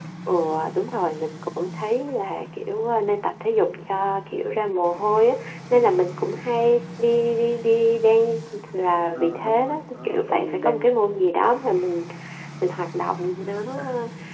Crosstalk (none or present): present